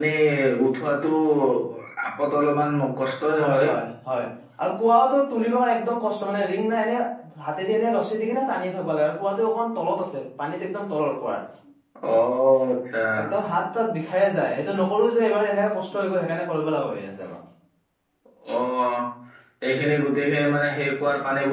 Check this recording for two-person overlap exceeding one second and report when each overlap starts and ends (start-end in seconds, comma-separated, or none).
none